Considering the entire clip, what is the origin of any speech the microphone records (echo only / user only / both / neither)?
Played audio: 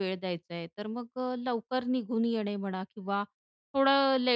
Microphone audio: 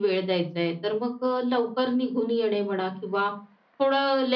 echo only